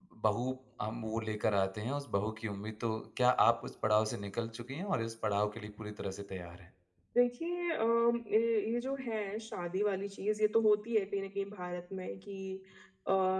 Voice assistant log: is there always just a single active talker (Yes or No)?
Yes